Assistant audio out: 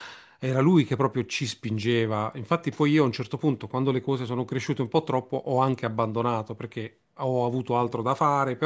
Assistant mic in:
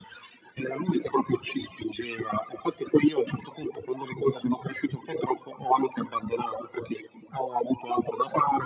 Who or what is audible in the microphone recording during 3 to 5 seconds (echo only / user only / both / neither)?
echo only